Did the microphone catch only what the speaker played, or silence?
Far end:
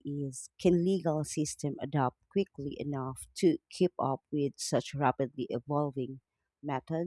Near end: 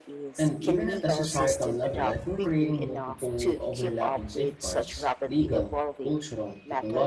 No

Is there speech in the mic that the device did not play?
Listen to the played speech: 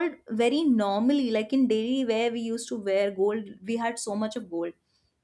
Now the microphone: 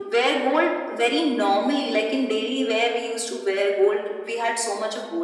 No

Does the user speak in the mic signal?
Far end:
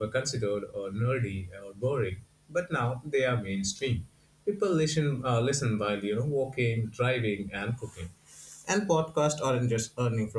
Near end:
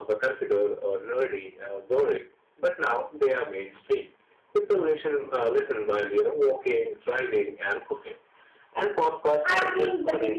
Yes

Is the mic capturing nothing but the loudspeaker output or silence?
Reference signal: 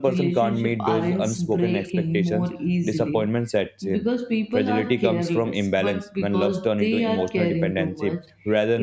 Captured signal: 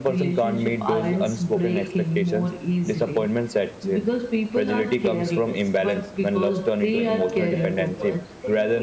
No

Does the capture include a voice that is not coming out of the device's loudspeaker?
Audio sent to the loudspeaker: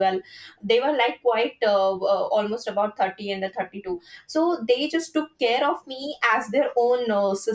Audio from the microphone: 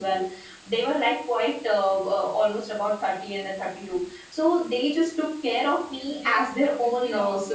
Yes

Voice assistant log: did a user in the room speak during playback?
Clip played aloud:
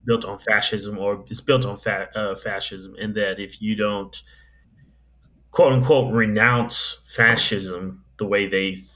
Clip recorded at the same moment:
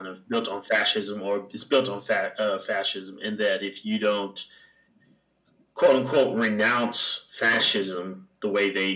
No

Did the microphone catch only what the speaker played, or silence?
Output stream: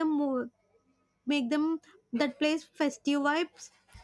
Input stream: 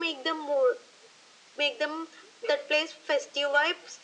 Yes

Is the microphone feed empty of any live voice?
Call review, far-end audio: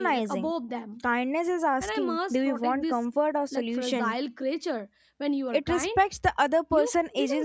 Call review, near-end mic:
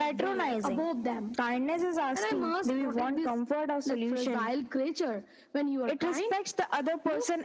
Yes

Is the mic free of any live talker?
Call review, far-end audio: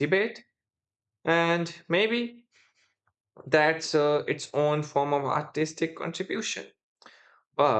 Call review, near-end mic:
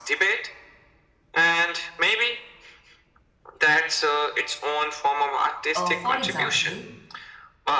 No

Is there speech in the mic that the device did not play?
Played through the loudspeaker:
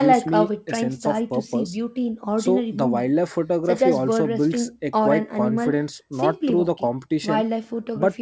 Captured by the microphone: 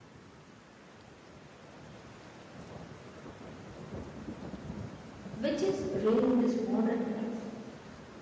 Yes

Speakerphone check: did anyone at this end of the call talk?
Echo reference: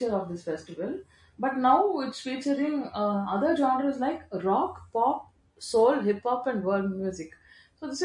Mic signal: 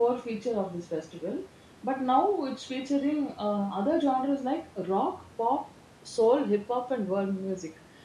No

